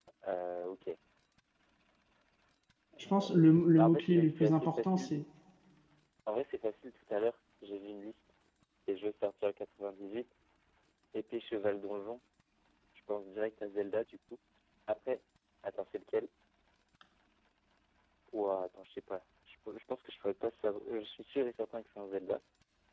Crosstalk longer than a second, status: present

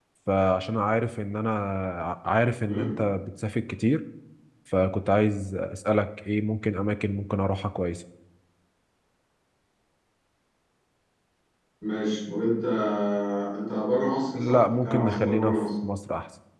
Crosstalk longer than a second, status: present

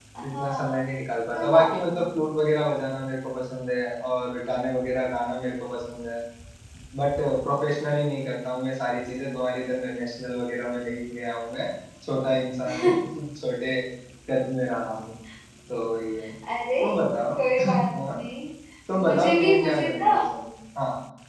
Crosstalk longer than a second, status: present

